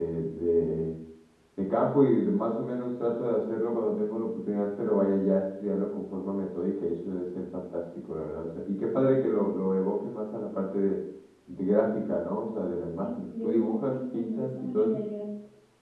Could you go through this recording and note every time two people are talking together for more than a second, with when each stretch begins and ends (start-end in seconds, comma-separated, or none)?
13.0-15.0